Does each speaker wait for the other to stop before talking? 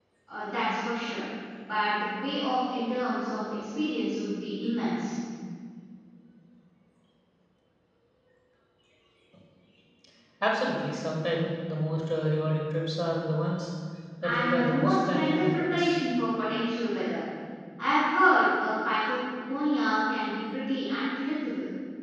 No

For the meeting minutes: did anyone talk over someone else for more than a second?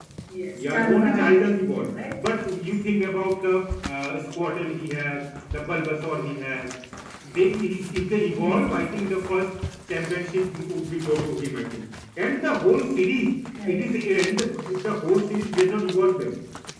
Yes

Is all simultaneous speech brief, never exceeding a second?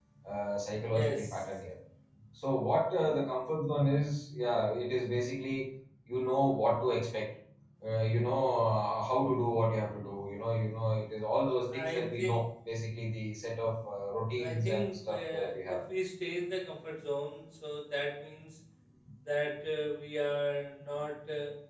No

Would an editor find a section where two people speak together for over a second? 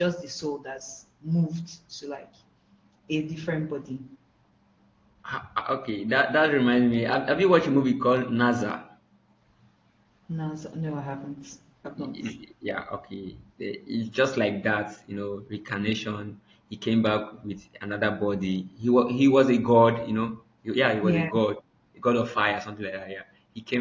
No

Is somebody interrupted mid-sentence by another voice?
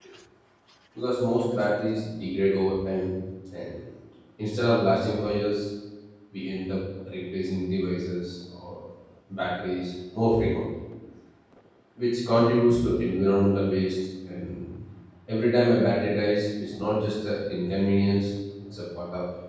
No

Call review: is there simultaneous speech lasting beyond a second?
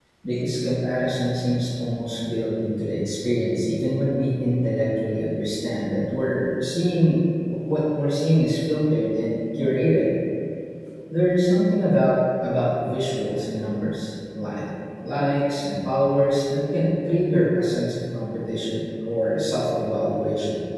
No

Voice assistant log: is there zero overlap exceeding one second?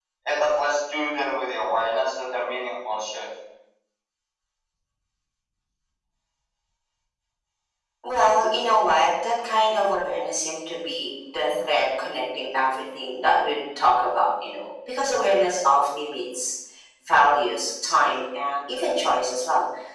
Yes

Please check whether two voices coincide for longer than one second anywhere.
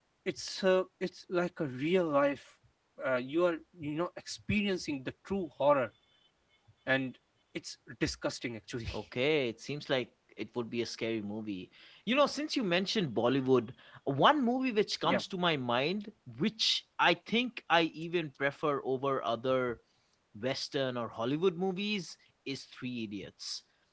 No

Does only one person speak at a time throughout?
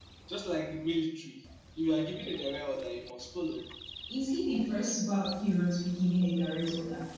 Yes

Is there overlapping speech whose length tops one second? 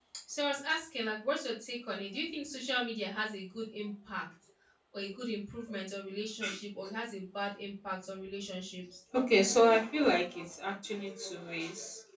No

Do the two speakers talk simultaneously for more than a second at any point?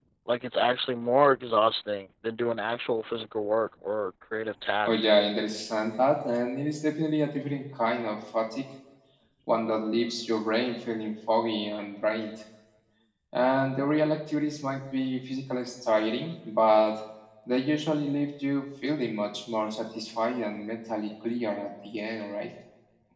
No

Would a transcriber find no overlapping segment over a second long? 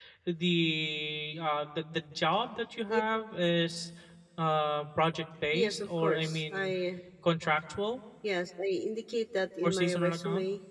No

